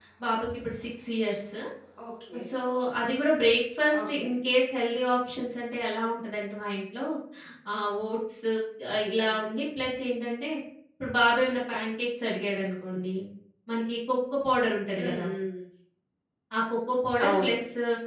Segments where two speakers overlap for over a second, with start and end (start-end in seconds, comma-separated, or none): none